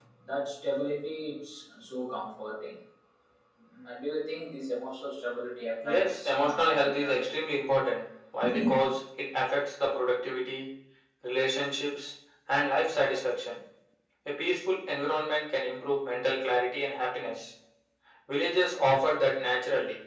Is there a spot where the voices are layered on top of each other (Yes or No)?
Yes